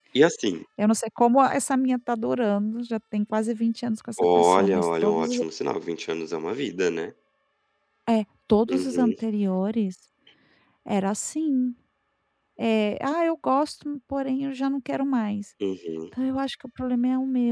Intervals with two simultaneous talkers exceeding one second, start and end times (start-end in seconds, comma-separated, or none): 4.2-5.4